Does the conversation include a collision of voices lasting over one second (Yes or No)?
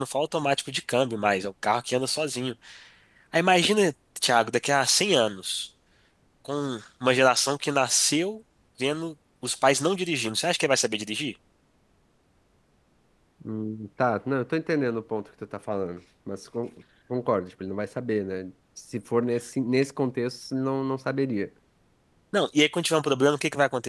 No